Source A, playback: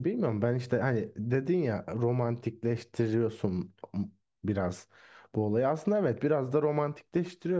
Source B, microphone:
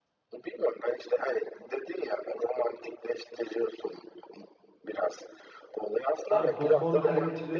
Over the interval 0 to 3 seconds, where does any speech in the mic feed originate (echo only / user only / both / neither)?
echo only